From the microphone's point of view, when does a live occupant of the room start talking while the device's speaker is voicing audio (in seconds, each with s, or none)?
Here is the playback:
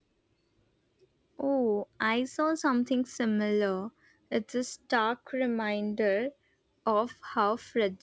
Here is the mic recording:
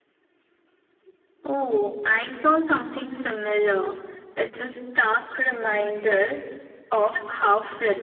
none